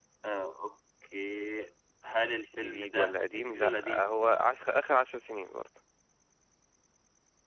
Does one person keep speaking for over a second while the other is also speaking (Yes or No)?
Yes